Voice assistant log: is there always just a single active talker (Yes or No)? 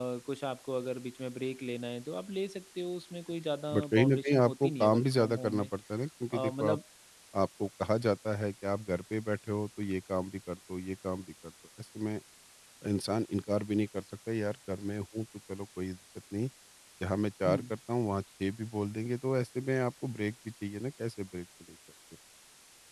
No